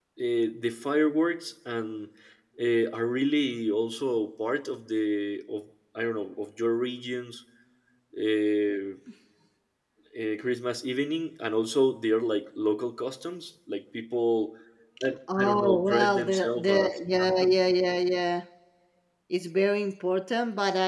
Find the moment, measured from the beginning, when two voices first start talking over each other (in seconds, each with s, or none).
15.4 s